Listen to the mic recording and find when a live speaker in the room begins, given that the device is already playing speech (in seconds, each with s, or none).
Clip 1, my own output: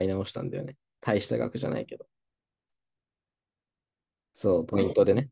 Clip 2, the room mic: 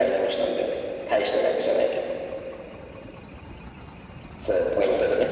none